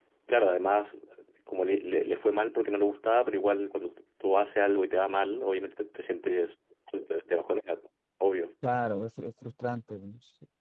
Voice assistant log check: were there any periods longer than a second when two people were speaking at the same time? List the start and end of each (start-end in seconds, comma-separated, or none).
none